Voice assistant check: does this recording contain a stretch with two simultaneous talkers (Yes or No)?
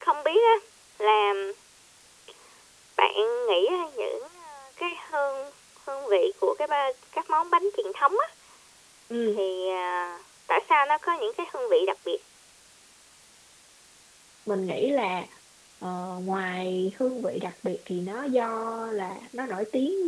No